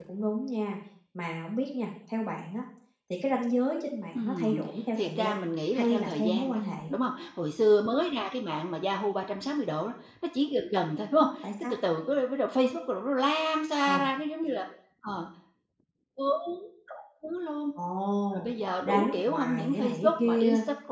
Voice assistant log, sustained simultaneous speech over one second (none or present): present